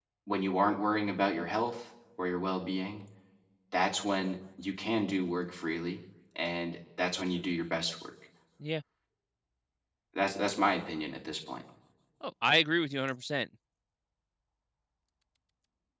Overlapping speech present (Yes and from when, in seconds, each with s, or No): No